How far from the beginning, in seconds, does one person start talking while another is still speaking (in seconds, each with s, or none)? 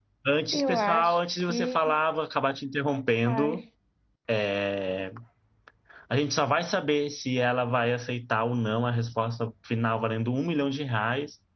0.5 s